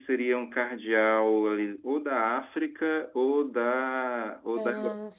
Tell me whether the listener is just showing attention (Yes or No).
Yes